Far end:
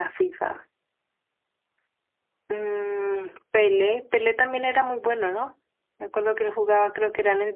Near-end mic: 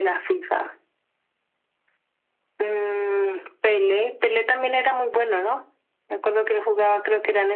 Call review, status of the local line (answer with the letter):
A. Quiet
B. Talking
A